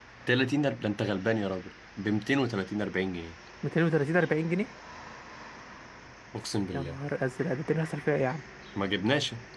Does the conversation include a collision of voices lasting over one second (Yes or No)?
No